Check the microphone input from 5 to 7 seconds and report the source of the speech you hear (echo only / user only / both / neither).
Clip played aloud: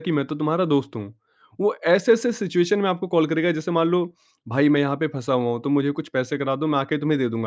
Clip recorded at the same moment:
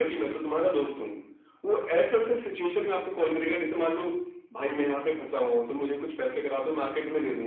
echo only